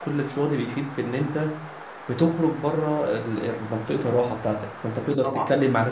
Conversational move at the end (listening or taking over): listening